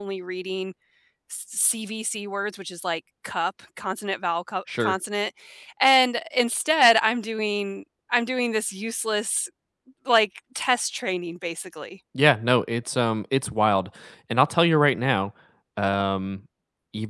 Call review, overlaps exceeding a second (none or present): none